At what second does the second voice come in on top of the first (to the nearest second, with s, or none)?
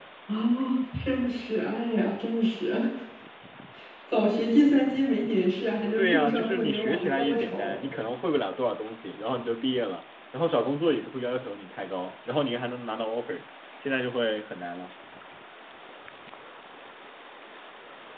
6 s